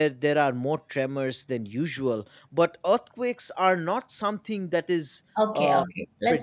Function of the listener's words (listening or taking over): taking over